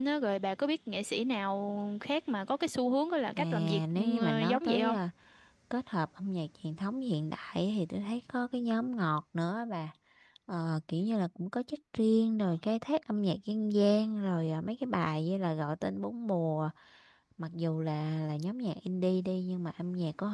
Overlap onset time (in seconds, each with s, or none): 3.4 s